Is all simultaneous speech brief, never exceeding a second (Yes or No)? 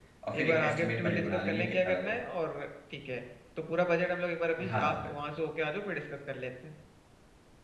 No